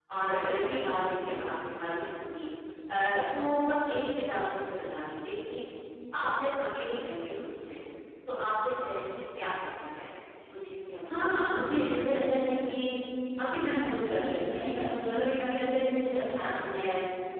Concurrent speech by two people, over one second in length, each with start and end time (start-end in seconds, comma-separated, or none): 11.2-12.7